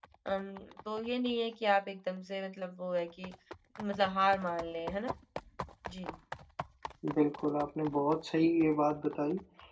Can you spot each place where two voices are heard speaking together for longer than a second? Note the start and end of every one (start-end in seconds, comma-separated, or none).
none